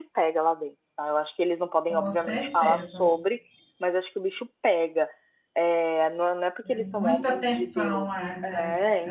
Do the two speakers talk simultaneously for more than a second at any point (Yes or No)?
Yes